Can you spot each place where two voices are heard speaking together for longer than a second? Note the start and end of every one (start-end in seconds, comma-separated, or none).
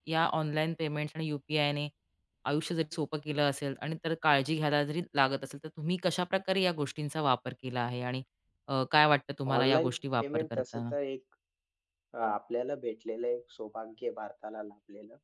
9.6-10.8